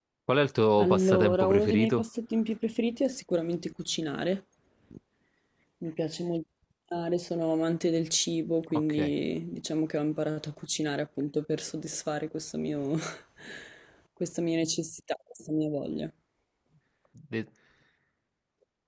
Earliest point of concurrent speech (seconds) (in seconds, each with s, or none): 0.8 s